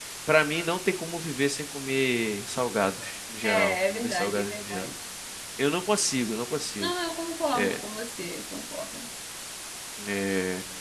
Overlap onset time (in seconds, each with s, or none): 3.4 s